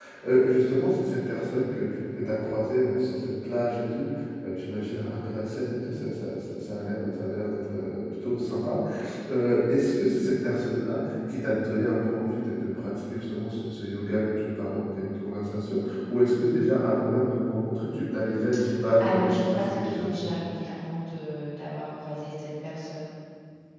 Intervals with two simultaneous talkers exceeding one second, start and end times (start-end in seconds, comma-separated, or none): 19.0-20.3